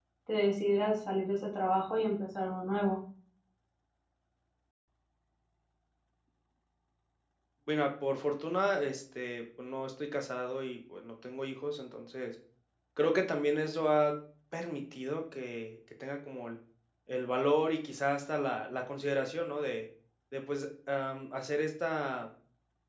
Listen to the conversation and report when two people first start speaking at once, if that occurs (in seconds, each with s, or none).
none